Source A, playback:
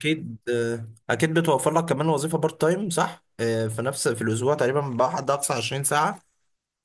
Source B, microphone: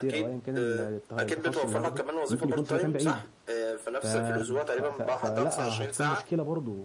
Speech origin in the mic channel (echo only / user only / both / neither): both